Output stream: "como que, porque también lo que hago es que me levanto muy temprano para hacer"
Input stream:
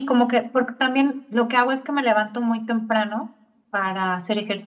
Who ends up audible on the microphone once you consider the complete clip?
echo only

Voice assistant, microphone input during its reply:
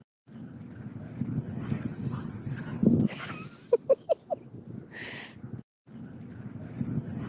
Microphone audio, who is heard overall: neither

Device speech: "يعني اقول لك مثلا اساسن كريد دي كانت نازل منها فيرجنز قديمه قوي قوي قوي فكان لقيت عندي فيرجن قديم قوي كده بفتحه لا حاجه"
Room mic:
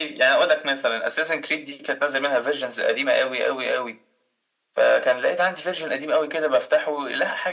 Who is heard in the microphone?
echo only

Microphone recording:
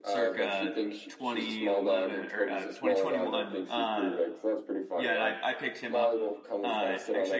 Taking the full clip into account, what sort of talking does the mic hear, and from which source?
both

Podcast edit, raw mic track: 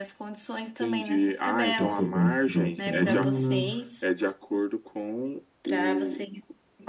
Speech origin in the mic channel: both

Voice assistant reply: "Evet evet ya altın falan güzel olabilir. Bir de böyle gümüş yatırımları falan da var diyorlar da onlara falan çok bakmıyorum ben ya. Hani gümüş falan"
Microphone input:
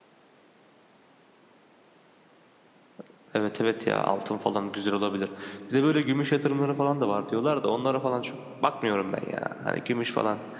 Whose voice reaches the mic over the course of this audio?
echo only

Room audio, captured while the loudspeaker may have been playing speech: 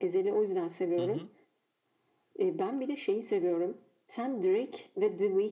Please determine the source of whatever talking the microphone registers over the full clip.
both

